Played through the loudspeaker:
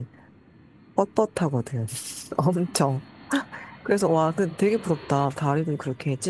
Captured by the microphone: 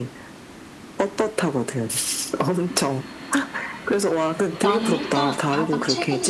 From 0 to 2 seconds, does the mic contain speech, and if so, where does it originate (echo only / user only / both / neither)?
echo only